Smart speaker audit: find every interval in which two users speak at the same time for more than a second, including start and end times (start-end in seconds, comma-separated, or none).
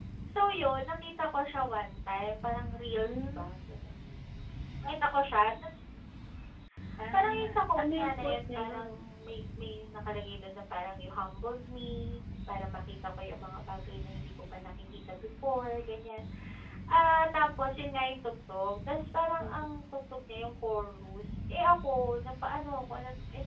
7.1-8.9